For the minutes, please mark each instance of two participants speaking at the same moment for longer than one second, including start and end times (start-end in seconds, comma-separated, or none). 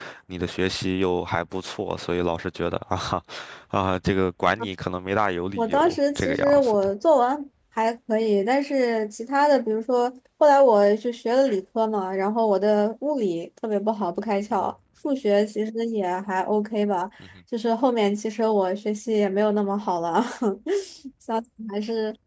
5.6-6.9